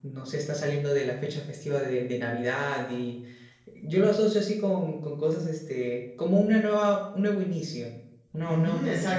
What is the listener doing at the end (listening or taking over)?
taking over